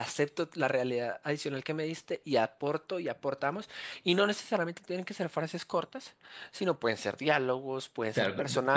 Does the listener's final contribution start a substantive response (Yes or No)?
Yes